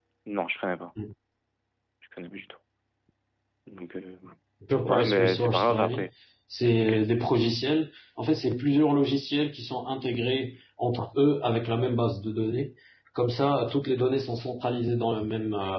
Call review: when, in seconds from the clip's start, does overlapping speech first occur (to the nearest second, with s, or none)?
5 s